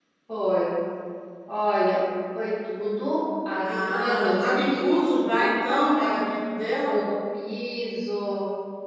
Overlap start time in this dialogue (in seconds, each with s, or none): 3.6 s